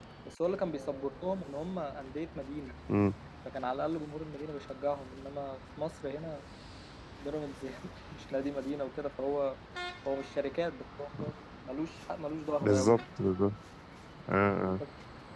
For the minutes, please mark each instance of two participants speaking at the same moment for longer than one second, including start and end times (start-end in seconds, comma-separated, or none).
none